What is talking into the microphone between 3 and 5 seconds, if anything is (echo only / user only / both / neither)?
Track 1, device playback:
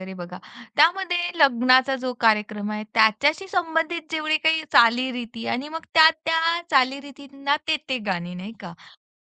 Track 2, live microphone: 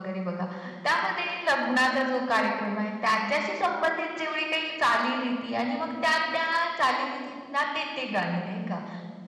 echo only